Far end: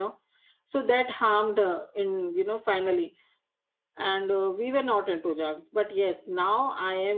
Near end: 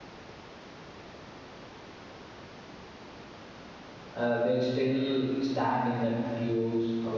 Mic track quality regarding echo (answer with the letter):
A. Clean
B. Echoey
A